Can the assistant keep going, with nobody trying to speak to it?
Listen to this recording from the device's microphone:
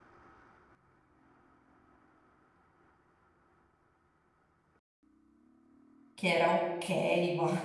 No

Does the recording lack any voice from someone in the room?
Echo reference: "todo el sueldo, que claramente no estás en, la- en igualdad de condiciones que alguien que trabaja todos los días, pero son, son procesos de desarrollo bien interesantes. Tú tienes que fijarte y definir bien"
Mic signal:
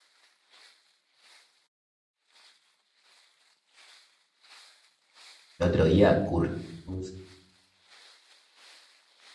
No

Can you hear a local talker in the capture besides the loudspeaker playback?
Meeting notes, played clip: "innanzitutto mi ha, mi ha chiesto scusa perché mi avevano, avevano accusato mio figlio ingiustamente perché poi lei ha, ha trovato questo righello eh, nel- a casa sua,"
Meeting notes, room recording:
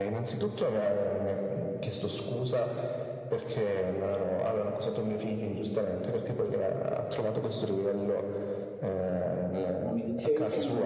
Yes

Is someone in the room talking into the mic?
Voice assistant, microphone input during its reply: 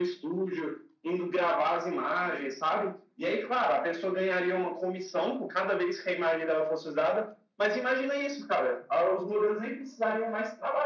No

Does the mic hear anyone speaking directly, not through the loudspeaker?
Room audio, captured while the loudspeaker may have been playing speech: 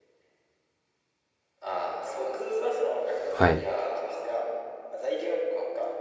Yes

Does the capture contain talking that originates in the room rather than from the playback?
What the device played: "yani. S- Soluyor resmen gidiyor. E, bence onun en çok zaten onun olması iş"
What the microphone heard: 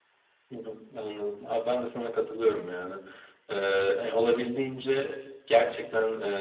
Yes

